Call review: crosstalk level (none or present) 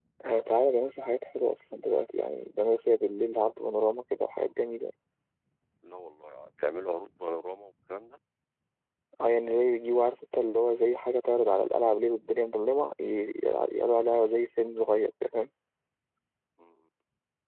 none